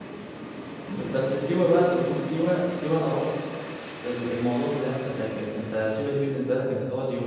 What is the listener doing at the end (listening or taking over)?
listening